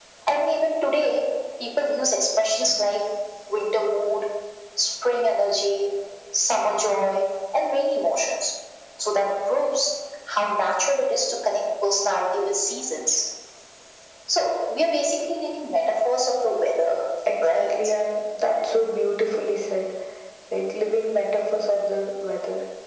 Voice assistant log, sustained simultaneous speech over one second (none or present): none